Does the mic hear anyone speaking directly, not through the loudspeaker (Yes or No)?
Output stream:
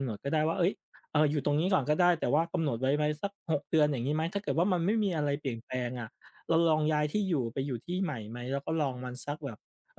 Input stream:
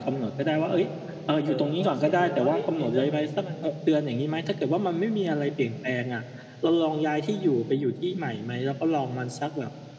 Yes